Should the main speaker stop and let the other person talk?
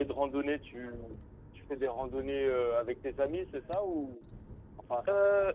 Yes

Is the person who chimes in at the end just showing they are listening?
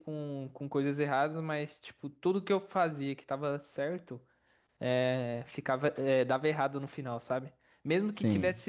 Yes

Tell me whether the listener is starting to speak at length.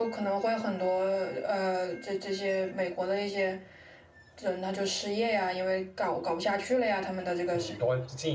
Yes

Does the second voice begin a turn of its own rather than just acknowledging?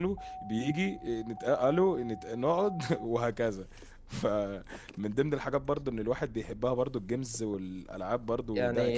Yes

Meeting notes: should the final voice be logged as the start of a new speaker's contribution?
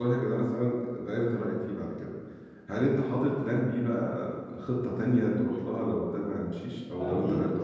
Yes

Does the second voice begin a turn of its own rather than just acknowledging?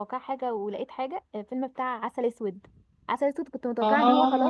No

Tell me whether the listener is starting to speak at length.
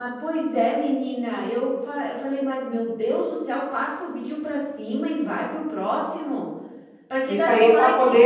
Yes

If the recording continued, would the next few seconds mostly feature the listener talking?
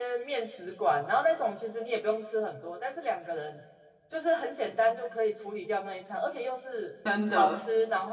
No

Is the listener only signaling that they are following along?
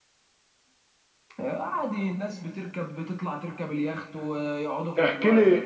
No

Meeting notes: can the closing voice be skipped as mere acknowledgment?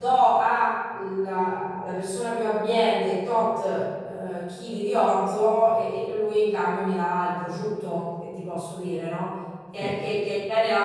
Yes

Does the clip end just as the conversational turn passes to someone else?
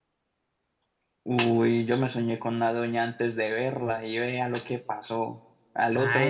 Yes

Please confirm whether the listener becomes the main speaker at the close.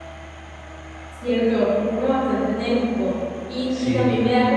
No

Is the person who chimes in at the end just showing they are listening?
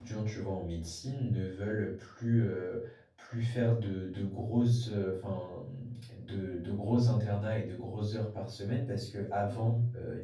Yes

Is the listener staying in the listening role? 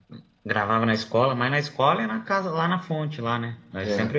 No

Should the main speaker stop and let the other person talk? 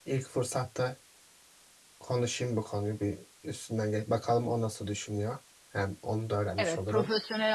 Yes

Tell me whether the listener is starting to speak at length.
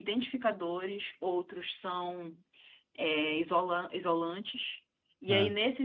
No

